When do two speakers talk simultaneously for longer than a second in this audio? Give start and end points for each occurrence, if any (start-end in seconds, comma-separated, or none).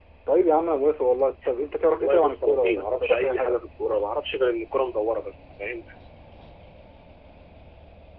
1.9-3.6